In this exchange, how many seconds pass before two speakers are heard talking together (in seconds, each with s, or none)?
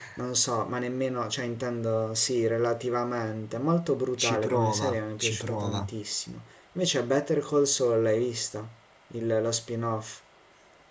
4.2 s